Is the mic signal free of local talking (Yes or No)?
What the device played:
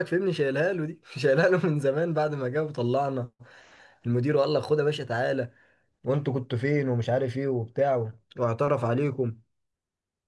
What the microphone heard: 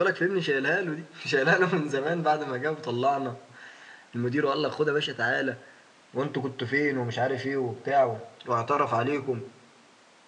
Yes